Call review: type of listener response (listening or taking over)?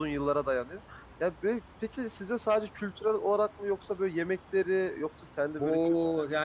taking over